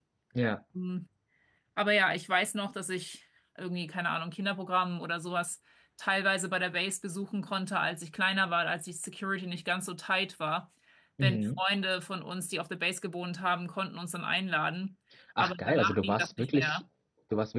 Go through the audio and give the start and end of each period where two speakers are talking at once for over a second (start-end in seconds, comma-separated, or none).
15.4-16.8